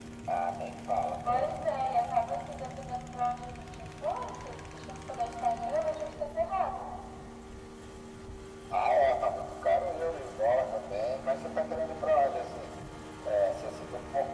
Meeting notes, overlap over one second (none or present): none